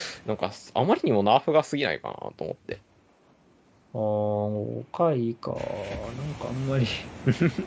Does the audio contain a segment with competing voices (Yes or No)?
No